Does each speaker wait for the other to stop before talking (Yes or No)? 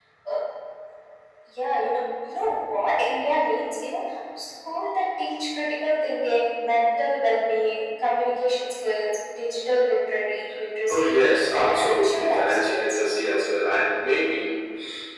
No